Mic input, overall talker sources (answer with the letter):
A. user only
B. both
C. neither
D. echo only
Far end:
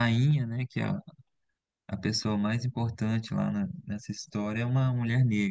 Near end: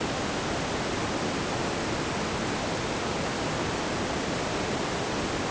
C